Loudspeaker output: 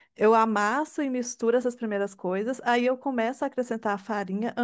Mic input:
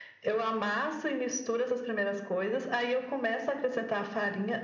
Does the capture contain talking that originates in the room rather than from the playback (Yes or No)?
No